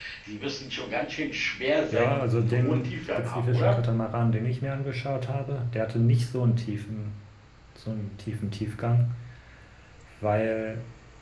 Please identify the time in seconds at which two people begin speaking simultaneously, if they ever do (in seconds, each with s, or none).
1.9 s